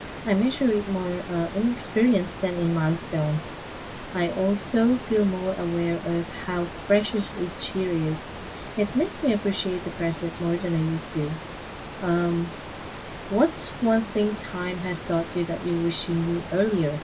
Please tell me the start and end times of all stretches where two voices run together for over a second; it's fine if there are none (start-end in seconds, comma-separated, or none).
none